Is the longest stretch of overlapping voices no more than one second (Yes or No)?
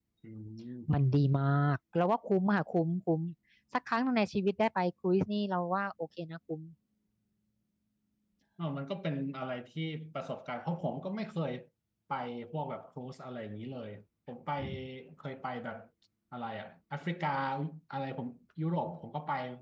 Yes